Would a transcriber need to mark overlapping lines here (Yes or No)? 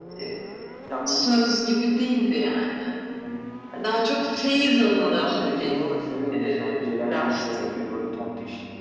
Yes